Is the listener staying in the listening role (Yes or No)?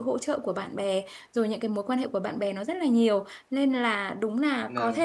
Yes